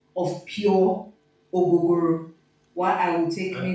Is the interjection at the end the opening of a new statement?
No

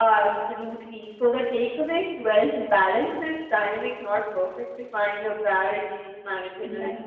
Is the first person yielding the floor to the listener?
No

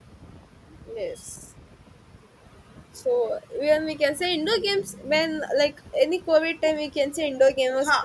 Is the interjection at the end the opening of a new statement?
Yes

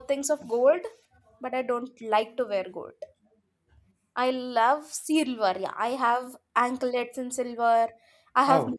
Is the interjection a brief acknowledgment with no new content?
Yes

